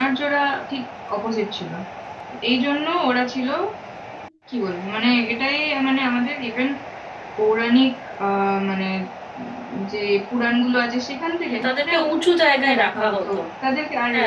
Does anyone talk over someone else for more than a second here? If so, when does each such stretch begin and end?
11.6-13.2

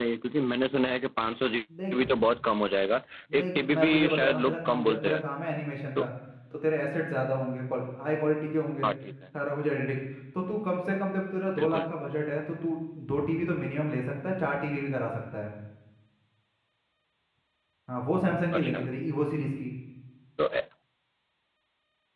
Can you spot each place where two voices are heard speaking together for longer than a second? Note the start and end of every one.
3.4-5.2

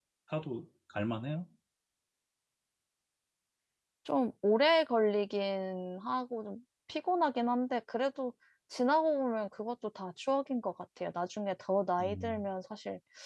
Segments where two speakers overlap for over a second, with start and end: none

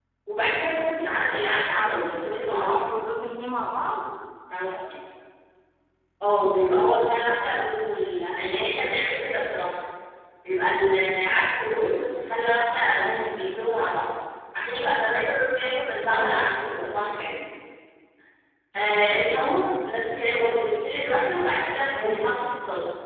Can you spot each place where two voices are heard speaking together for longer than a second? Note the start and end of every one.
none

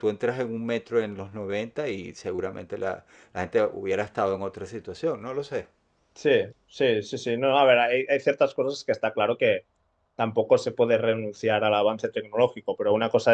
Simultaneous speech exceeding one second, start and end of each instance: none

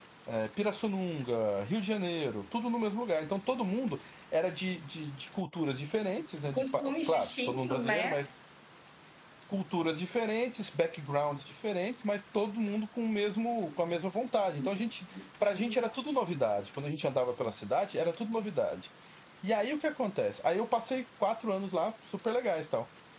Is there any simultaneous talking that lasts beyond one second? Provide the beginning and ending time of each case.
6.5-8.1

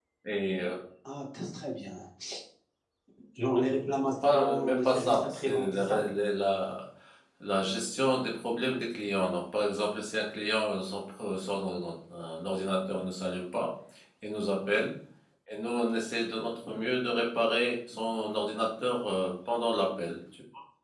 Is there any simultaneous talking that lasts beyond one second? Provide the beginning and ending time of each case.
4.3-6.0

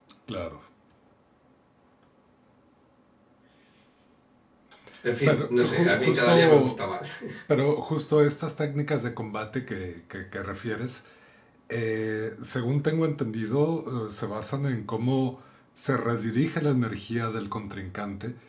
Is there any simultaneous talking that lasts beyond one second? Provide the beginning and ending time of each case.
5.2-6.8

